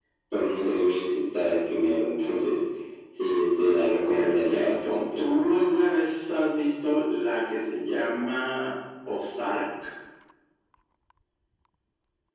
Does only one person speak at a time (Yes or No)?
No